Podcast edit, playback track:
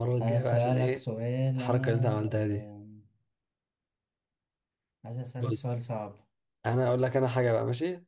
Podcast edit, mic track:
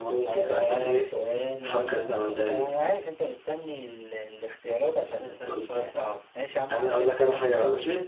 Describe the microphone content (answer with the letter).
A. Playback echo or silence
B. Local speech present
B